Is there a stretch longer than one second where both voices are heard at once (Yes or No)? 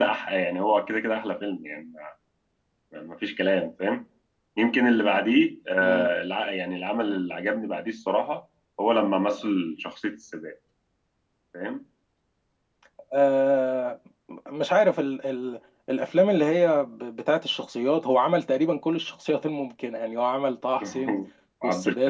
No